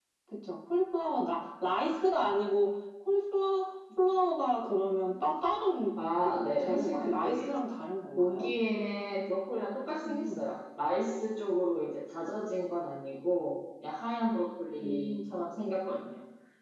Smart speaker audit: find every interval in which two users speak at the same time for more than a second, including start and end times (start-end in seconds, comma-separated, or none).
6.2-7.5